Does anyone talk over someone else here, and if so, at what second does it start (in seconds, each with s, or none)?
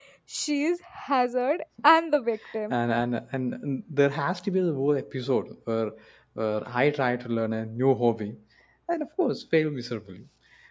none